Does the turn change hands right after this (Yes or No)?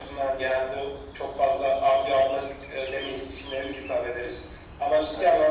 No